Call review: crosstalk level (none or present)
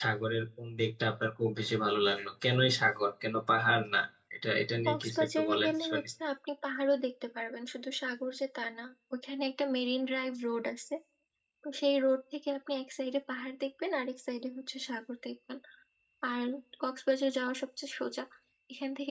present